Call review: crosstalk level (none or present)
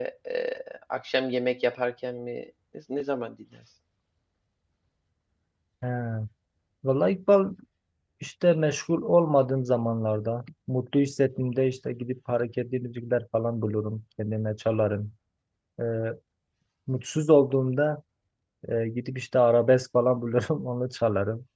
none